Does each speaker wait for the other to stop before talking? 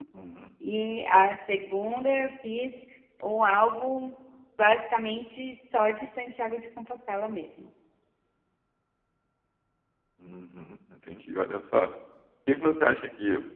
Yes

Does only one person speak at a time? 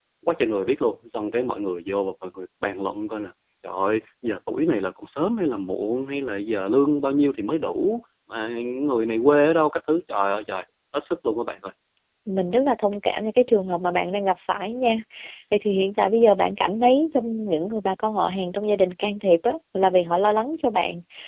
Yes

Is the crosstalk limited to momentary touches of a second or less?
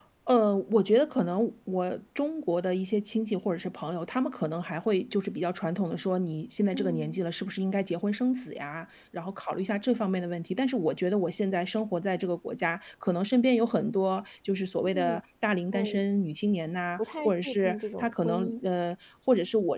No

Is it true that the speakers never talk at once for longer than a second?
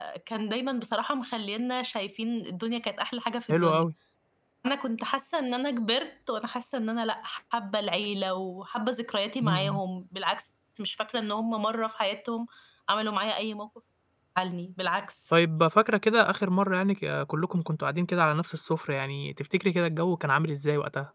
Yes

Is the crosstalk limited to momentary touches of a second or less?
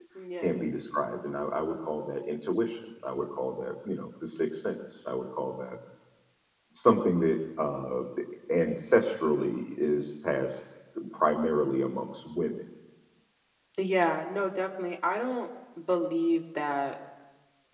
Yes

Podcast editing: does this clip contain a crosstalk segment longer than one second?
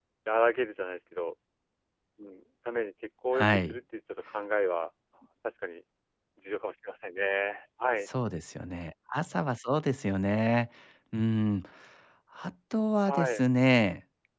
No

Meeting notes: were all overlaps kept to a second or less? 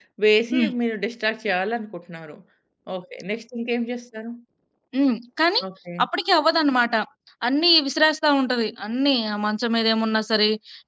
Yes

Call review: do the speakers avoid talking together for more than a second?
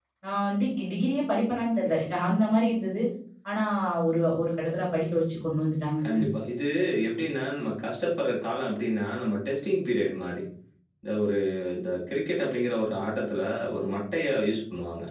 Yes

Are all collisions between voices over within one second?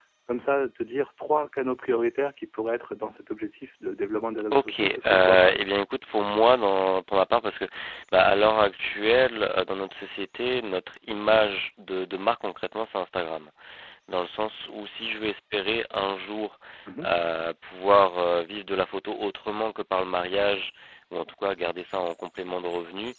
No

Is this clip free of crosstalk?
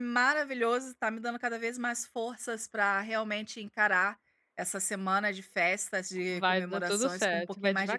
No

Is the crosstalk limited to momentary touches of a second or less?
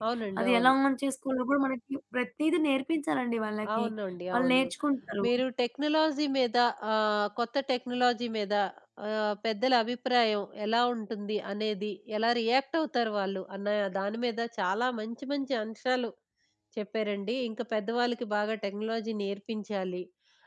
Yes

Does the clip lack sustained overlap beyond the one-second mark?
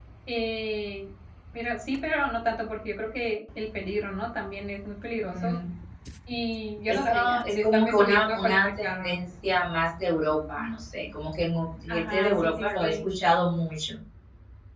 No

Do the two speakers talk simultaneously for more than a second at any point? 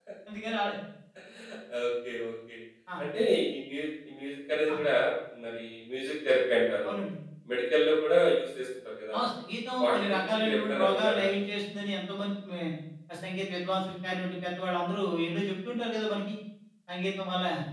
Yes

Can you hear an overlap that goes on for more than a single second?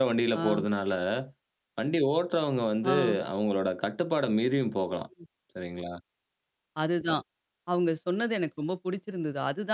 No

